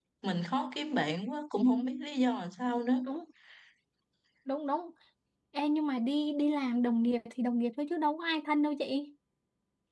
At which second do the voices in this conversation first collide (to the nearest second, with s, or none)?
none